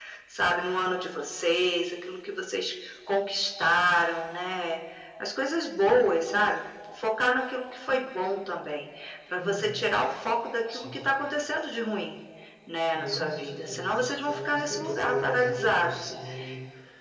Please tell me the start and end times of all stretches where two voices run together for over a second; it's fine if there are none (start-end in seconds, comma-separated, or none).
13.0-16.1